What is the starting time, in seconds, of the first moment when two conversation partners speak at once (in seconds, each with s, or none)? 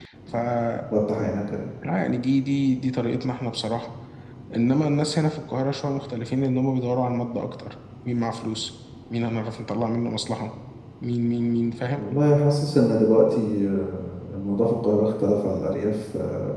none